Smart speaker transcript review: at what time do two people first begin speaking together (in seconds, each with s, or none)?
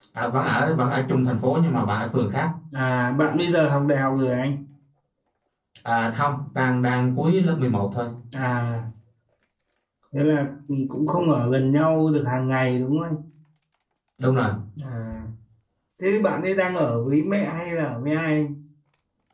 none